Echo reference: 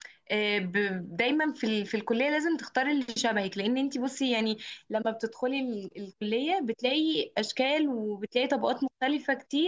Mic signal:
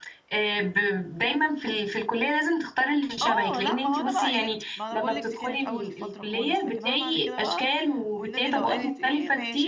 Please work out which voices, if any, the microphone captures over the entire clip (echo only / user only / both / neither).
both